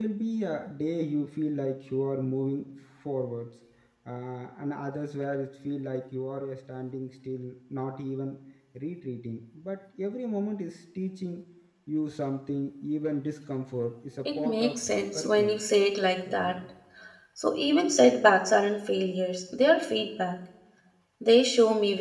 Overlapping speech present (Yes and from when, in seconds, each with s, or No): Yes, from 14.4 s